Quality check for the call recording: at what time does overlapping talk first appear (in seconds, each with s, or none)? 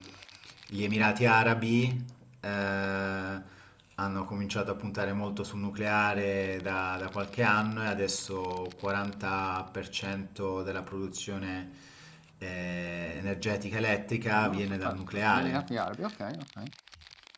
14.3 s